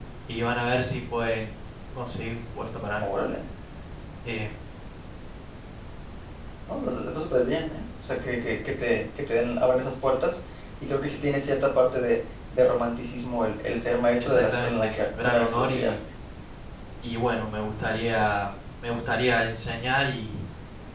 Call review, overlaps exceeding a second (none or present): present